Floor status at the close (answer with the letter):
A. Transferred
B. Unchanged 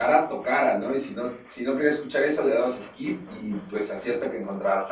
B